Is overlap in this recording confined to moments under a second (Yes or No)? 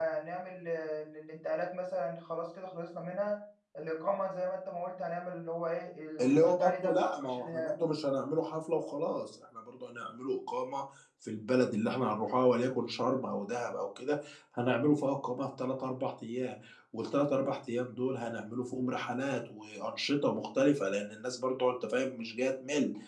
No